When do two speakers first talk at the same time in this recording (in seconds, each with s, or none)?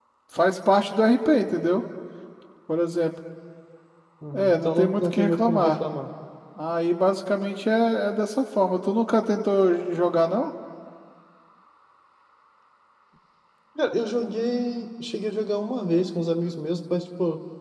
4.3 s